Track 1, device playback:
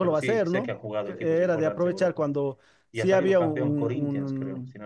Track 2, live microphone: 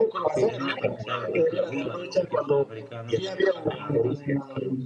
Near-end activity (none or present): present